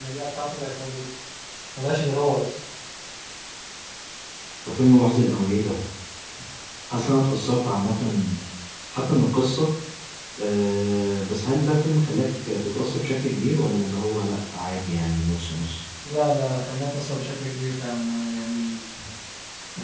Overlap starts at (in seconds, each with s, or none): none